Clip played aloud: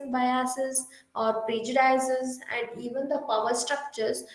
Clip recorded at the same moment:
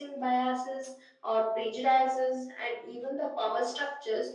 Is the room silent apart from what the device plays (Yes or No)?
Yes